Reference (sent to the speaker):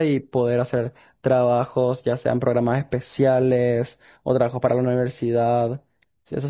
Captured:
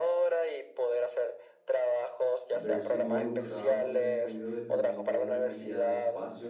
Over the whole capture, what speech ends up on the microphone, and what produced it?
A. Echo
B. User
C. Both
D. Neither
C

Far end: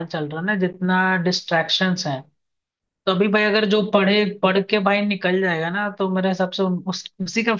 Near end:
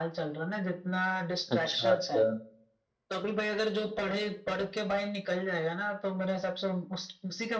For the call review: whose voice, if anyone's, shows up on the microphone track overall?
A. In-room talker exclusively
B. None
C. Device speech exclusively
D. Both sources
D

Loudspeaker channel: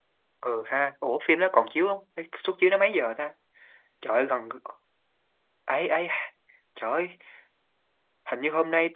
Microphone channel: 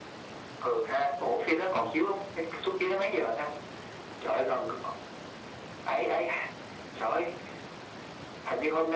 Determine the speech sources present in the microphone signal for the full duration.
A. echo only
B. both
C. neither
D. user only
A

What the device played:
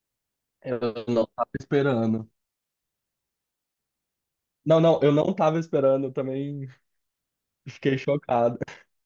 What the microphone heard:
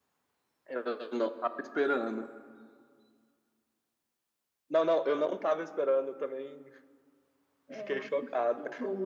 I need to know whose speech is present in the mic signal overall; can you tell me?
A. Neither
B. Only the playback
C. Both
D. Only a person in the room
C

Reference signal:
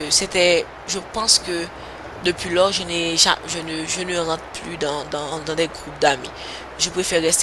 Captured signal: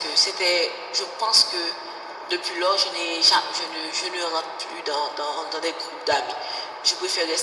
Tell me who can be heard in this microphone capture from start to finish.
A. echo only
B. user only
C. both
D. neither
A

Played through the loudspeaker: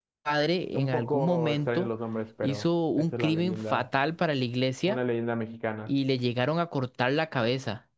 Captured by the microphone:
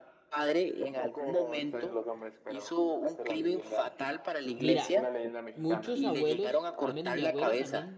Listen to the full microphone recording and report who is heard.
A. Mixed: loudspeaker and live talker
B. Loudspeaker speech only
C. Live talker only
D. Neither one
A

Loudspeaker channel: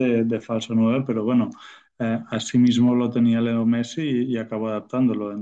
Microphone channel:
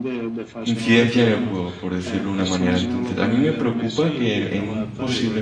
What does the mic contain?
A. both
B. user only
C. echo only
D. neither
A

